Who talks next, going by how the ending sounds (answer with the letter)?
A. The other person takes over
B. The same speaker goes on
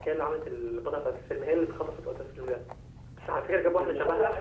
A